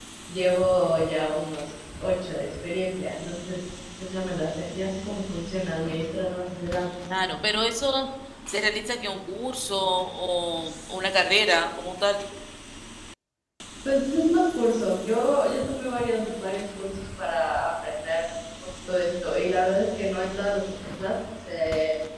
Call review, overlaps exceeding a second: none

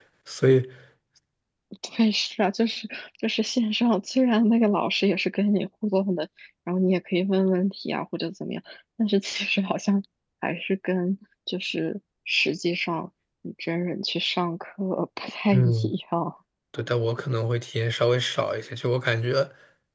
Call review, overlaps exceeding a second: none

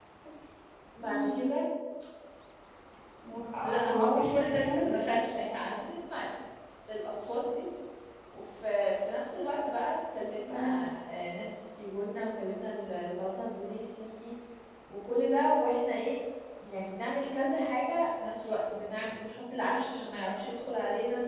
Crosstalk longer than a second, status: present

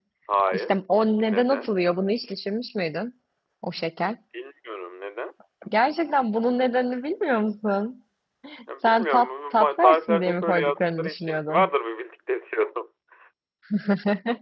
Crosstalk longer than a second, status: present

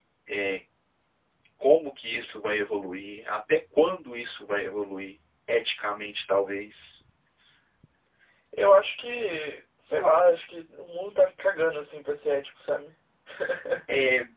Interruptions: none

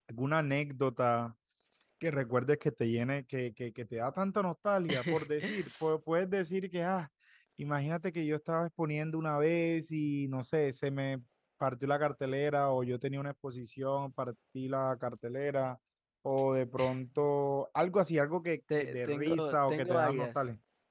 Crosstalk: present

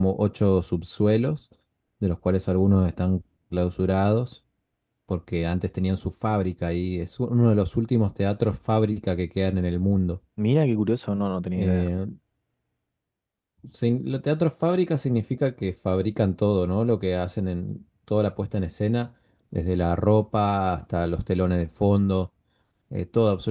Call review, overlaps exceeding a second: none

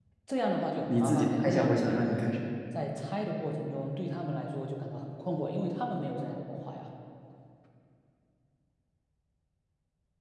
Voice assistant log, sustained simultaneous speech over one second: present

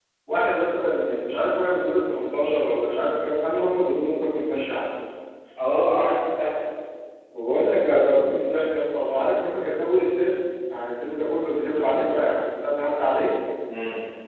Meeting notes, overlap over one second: none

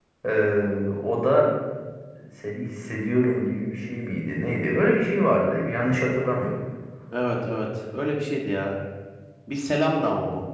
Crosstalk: none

